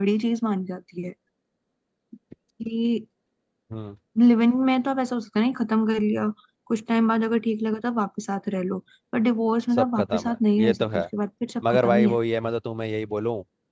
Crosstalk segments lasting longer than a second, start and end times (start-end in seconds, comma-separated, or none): 9.7-11.0